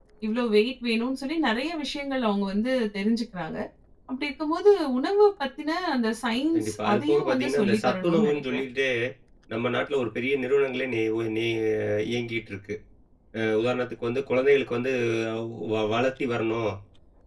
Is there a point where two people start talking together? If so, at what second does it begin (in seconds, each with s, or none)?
6.5 s